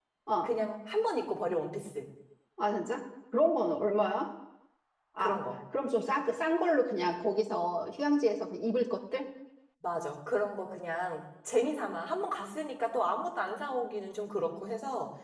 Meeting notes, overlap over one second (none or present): none